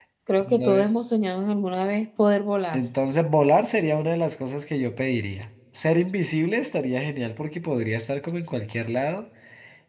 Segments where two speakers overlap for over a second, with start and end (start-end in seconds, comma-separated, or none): none